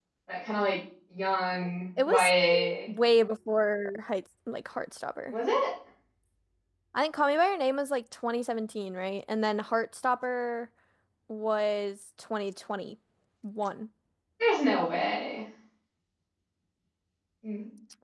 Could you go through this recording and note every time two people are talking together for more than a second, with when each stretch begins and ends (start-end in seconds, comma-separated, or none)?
none